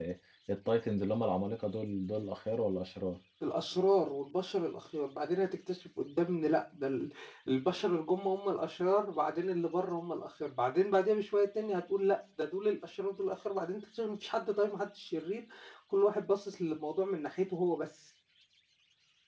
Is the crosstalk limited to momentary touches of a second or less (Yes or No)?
Yes